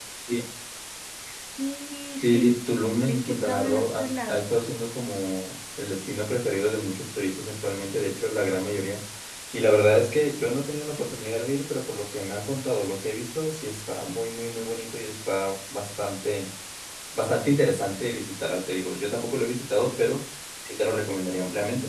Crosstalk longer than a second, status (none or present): present